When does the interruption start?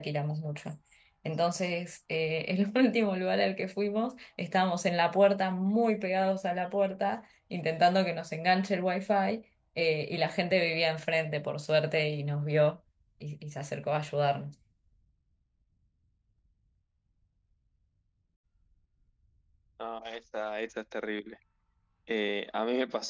none

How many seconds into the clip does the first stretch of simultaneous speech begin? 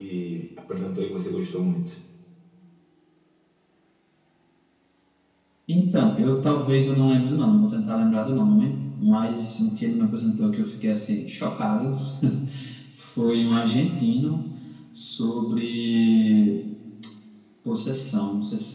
none

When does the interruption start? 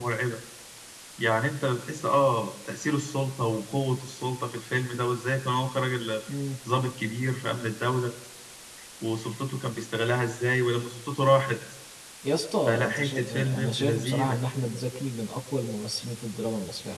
12.7 s

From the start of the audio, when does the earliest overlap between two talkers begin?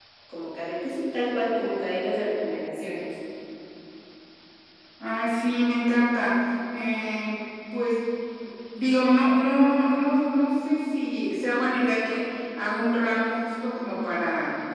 none

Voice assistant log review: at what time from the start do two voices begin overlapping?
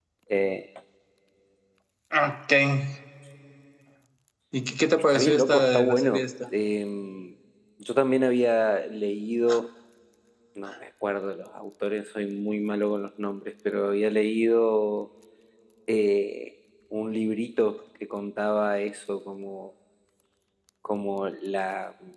4.9 s

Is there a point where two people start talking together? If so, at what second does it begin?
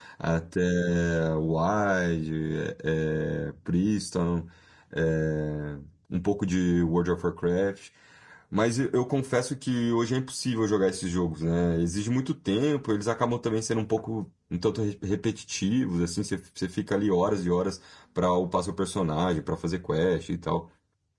none

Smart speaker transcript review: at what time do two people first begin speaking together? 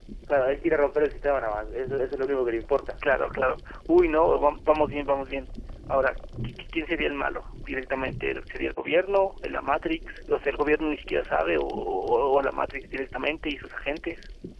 none

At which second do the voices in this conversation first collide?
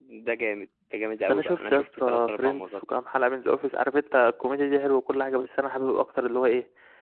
1.2 s

